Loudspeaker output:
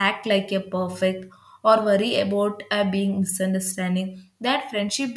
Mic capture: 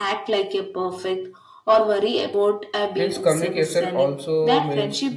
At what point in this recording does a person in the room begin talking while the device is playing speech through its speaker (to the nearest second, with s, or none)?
3 s